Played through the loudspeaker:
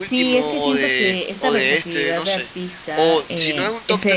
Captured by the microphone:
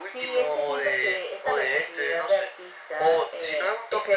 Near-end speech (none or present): none